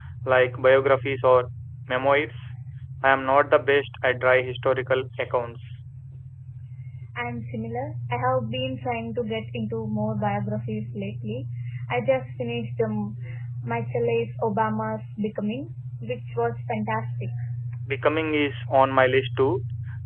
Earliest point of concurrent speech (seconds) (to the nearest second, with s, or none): none